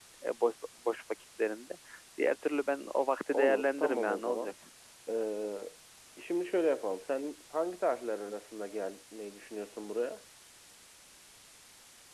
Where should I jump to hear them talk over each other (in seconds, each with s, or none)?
3.3 s